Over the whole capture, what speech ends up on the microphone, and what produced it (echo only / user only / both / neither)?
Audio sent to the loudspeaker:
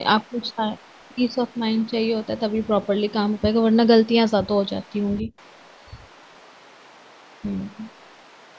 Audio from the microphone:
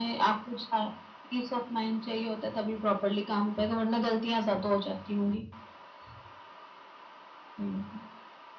echo only